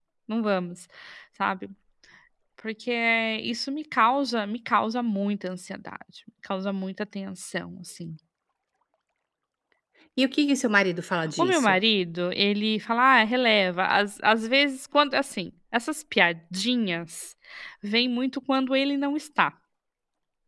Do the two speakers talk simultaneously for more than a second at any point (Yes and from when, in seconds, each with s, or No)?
No